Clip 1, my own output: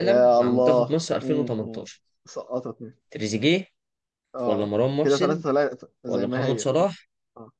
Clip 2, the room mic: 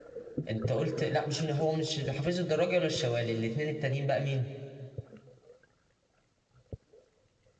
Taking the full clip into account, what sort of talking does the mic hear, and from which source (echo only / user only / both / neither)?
user only